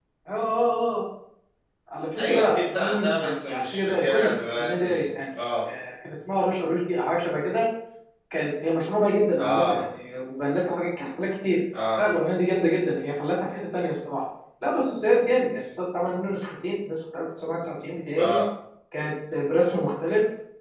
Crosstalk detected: Yes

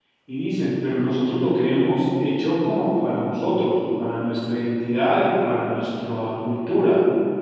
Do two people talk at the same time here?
No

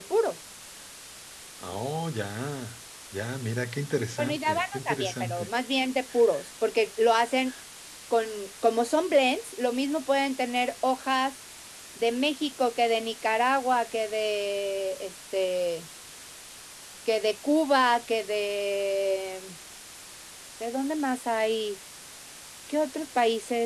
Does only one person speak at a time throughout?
No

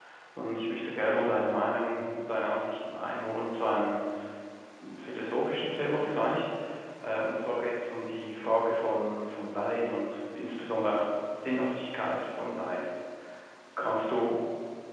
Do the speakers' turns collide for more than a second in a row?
No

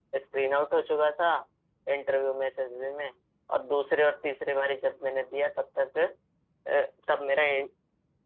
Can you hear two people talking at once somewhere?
No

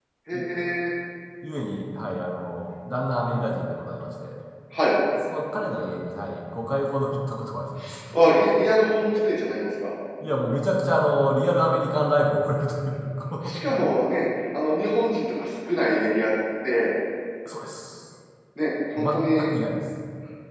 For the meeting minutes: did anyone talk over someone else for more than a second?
No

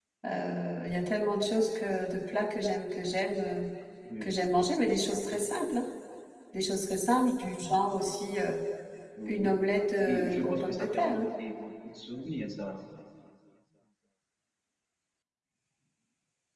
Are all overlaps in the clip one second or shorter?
No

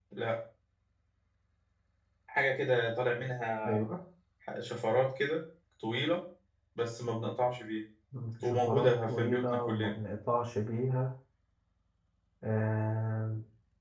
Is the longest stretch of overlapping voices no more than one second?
No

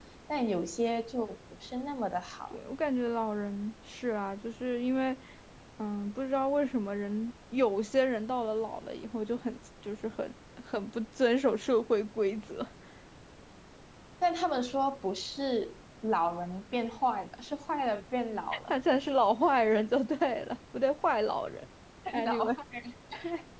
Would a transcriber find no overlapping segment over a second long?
Yes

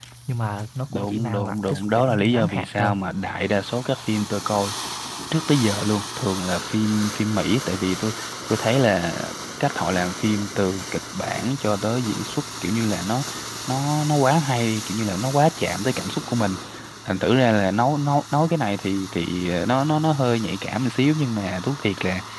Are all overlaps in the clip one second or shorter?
No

